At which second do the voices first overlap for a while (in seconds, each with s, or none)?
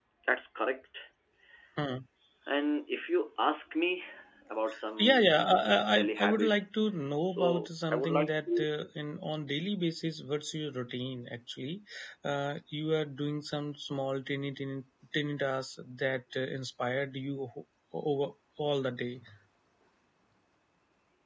5.0 s